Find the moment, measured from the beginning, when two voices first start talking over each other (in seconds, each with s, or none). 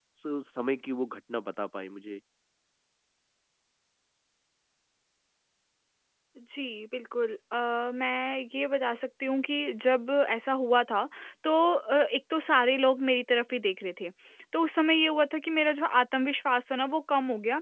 none